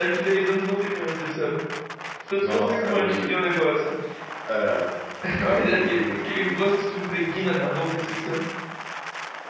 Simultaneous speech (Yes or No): Yes